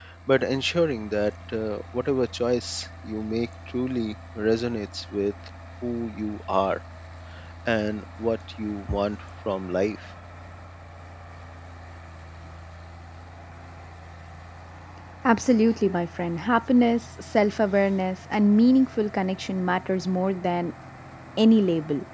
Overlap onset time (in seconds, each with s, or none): none